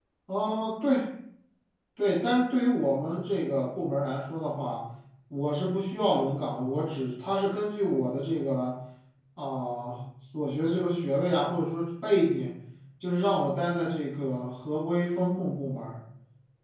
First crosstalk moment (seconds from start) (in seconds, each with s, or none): none